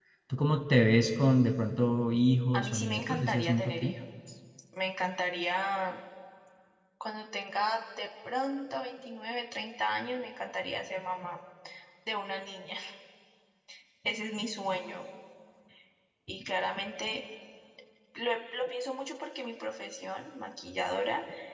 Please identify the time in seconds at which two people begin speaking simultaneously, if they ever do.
3 s

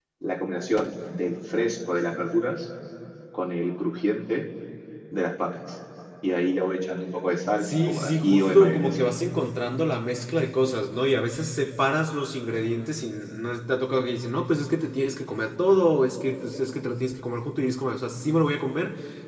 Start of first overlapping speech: 8 s

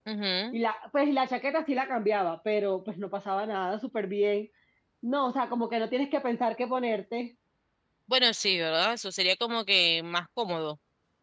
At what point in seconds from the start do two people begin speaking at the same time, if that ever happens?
none

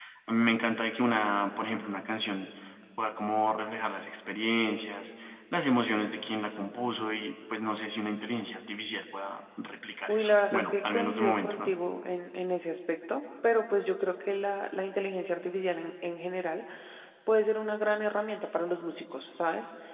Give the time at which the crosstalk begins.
10 s

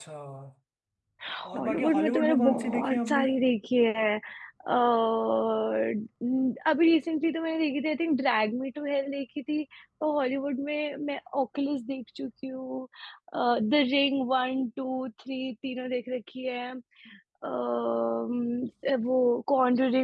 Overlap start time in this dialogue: 2 s

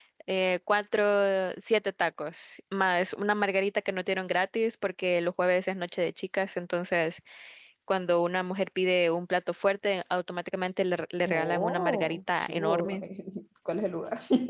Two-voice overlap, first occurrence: 11 s

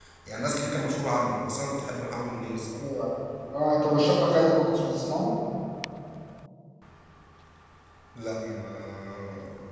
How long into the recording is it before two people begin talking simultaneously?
none

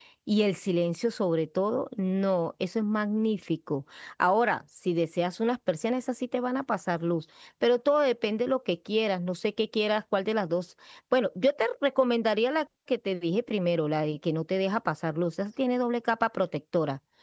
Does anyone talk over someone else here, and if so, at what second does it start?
none

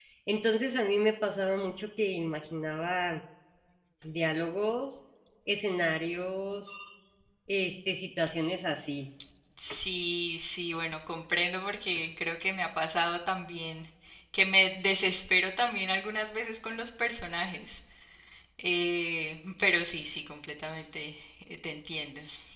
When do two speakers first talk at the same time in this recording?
none

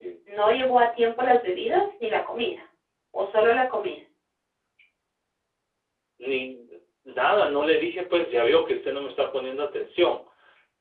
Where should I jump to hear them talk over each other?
none

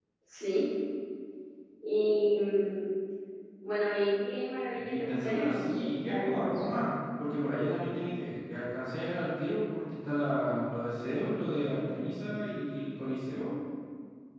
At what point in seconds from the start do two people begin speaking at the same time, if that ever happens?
5 s

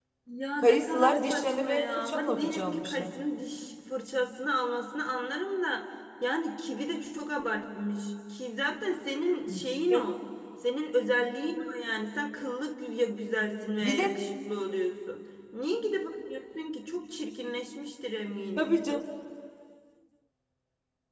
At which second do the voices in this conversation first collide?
1 s

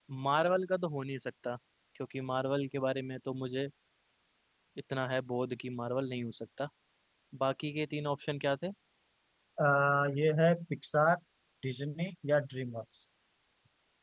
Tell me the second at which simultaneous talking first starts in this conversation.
none

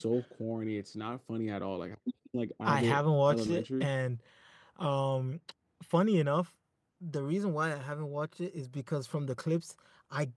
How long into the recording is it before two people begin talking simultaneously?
3 s

